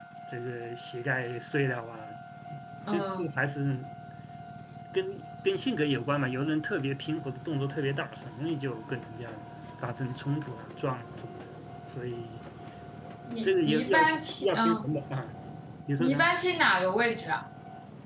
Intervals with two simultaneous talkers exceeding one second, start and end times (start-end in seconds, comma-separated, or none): 13.4-14.9